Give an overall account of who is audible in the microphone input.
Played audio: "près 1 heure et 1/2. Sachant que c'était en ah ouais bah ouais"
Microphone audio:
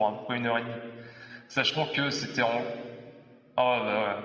echo only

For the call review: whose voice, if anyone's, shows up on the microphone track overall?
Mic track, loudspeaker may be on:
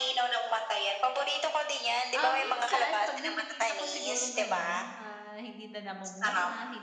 both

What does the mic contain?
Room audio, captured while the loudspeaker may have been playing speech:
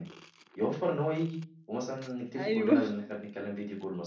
both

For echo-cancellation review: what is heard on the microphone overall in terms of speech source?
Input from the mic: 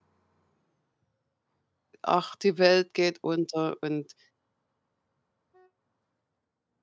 user only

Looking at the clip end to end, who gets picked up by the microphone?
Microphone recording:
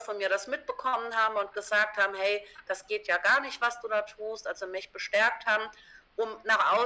echo only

